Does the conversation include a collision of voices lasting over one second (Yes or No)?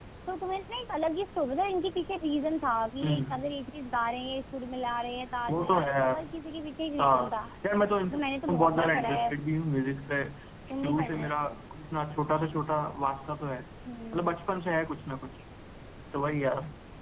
Yes